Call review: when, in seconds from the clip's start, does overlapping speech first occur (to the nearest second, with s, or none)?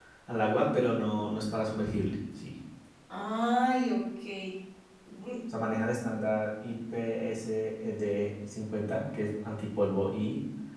none